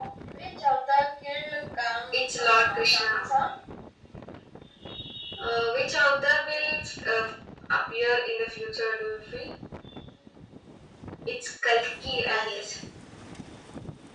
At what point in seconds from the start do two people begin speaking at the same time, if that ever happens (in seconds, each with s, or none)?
2.1 s